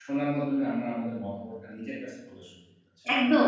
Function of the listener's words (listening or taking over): taking over